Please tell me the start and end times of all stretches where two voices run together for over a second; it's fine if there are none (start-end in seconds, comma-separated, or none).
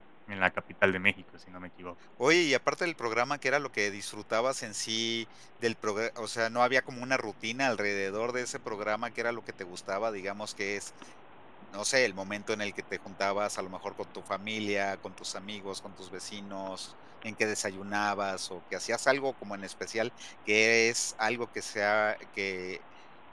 none